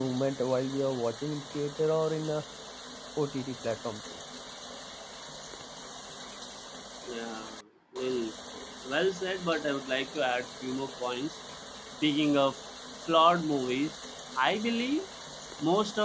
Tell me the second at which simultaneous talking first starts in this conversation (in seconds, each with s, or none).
none